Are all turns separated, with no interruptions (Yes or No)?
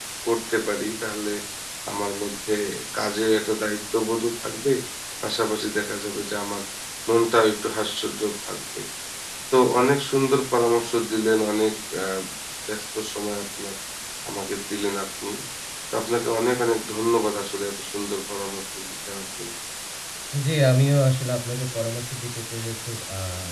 Yes